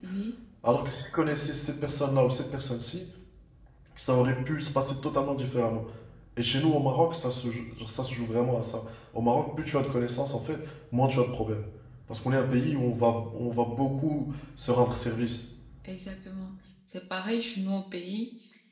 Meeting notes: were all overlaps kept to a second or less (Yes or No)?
Yes